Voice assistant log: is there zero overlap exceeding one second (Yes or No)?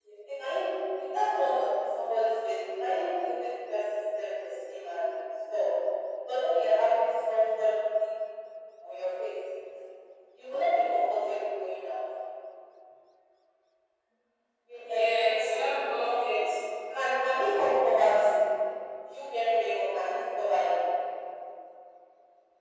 No